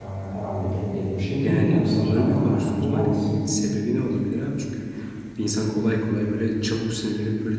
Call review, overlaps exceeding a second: present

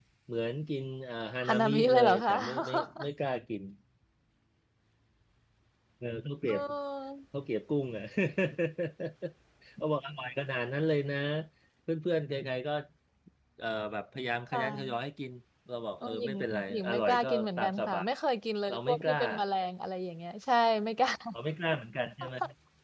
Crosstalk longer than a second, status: present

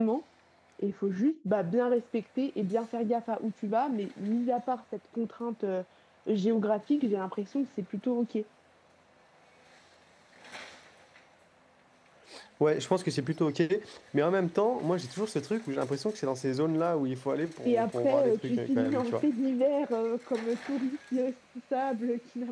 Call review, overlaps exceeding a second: present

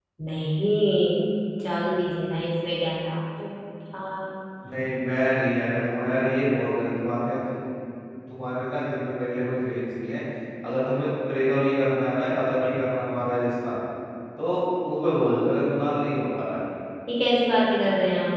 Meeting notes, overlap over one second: none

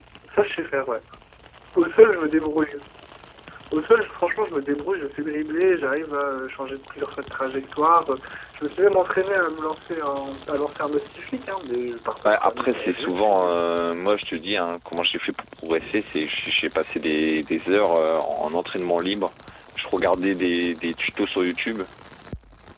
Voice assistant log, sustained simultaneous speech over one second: present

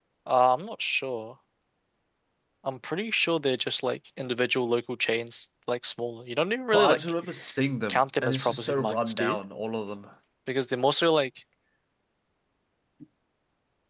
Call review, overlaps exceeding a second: present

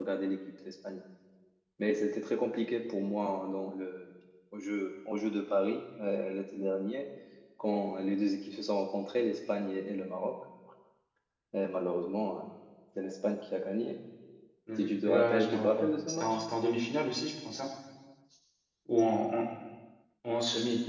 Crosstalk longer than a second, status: present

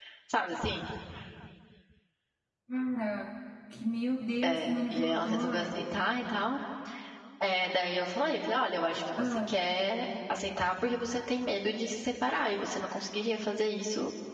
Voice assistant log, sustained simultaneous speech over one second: present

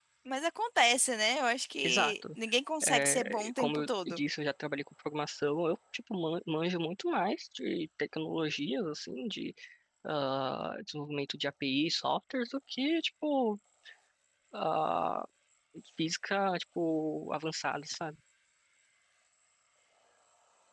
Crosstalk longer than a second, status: present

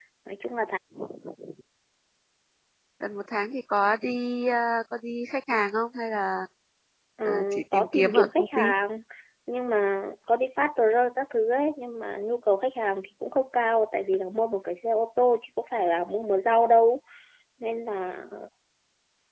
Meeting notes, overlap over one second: present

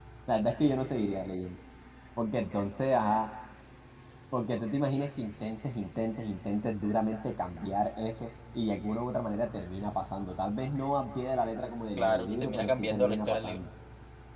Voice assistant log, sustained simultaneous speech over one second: present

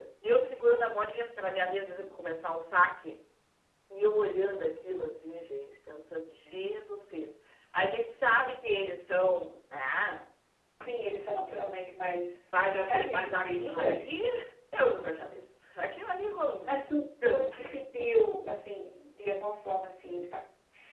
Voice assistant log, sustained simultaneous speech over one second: present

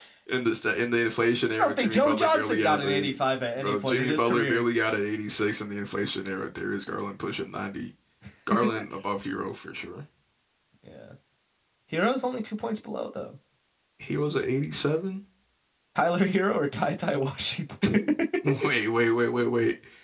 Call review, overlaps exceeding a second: present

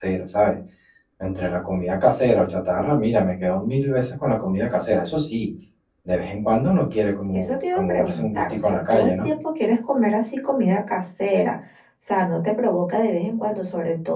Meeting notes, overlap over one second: present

